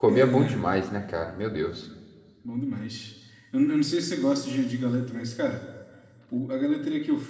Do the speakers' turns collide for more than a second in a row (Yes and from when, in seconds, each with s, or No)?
No